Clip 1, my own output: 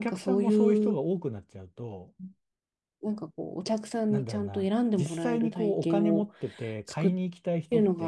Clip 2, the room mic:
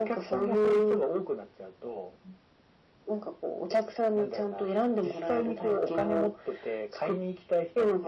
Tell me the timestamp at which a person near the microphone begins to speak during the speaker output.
none

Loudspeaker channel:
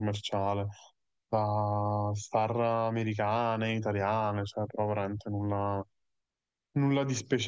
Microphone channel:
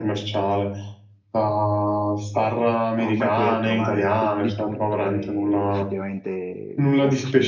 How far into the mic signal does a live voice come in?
3 s

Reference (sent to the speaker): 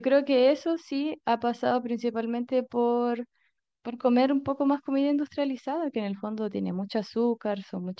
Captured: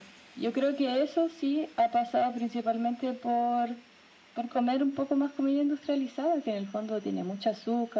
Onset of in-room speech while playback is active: none

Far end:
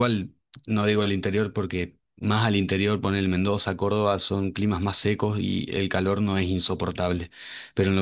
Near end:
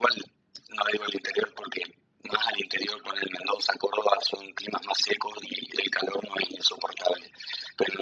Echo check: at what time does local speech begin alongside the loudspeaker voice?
none

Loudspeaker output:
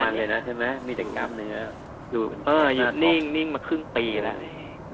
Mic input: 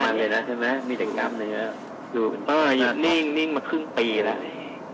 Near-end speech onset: none

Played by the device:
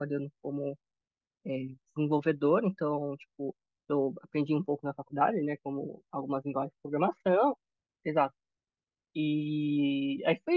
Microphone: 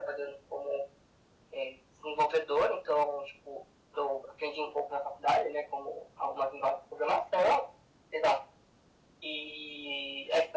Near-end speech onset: none

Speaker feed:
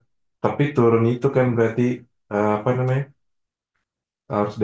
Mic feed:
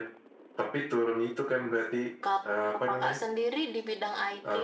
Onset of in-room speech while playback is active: 2 s

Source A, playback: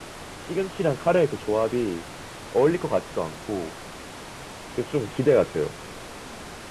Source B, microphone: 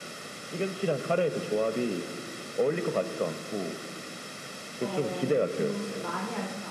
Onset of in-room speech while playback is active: 5 s

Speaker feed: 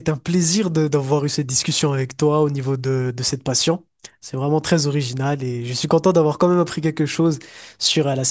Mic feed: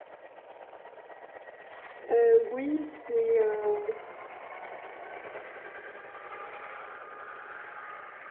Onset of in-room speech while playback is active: 2 s

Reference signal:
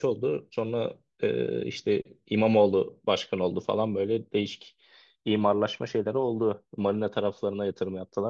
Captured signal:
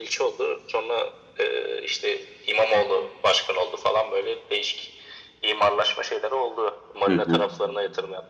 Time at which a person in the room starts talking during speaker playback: 7 s

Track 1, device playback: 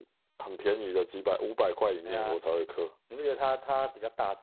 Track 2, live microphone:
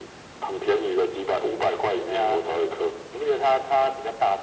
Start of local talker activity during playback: none

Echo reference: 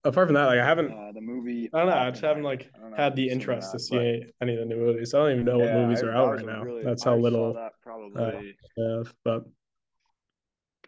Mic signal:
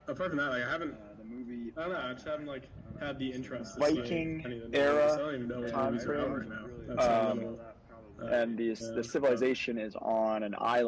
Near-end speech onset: 4 s

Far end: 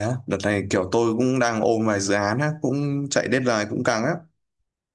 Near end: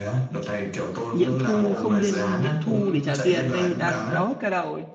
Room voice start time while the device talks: 1 s

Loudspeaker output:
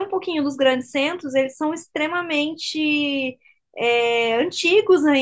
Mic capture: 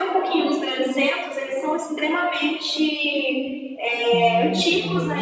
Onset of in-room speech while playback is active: 4 s

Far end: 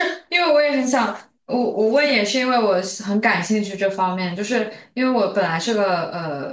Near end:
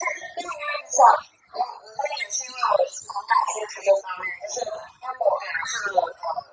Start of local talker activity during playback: none

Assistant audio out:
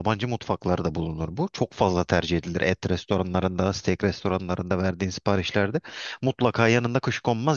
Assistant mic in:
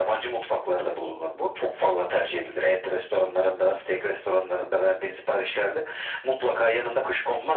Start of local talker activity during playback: none

